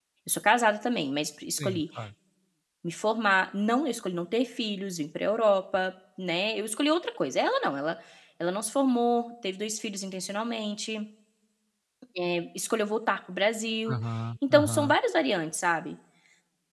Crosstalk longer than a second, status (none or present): none